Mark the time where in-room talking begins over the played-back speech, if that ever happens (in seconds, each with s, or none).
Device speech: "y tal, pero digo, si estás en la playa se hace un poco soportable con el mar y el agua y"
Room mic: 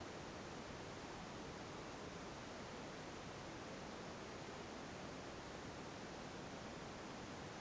none